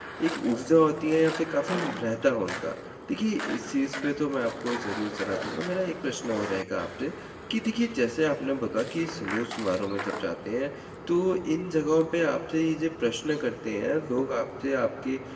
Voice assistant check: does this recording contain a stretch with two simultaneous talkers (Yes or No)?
No